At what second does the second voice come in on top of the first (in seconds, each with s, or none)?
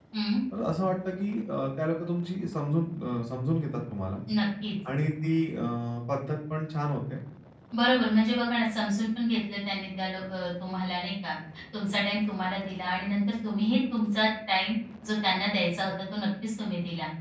none